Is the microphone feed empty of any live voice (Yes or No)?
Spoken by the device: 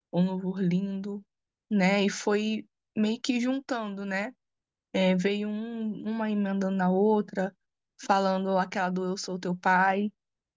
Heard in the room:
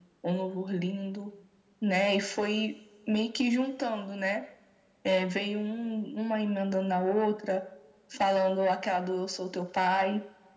Yes